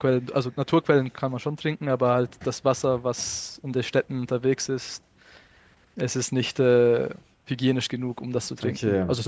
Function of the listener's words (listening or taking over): listening